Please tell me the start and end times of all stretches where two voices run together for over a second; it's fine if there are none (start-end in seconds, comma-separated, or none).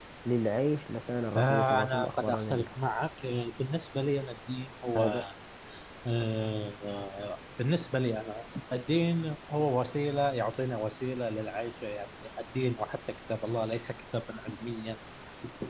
1.3-2.7